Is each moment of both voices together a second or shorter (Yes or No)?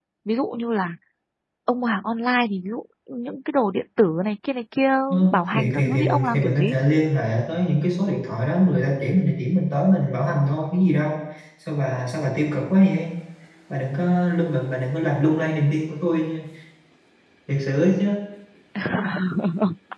No